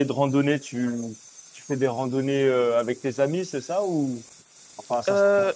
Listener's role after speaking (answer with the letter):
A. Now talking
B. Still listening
A